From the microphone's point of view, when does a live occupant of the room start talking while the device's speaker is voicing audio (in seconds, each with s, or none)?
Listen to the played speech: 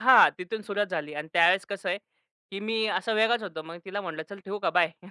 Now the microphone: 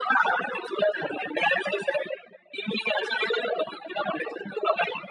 none